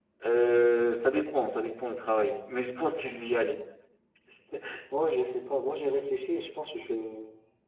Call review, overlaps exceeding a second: none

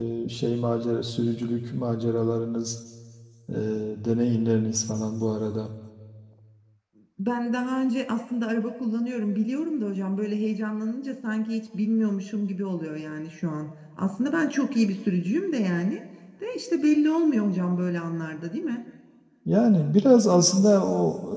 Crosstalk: none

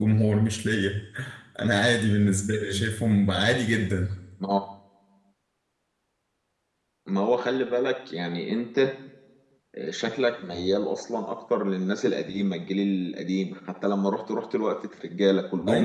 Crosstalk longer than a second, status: none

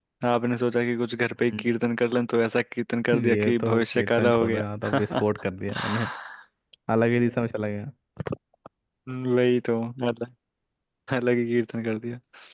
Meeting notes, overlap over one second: present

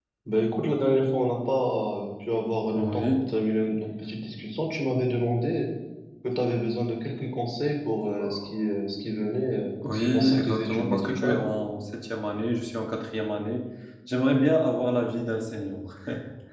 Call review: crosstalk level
present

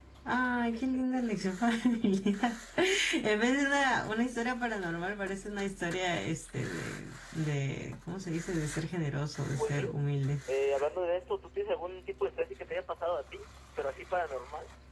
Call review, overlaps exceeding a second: none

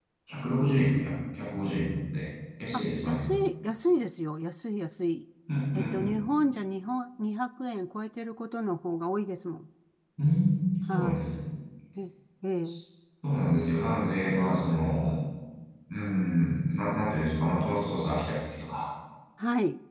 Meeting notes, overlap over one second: none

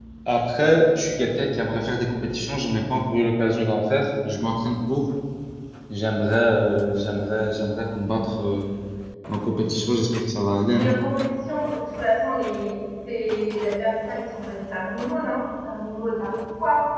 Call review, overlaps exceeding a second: none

